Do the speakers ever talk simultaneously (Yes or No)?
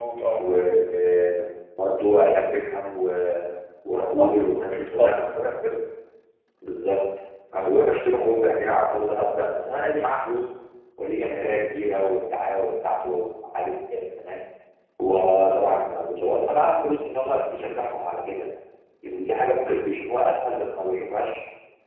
Yes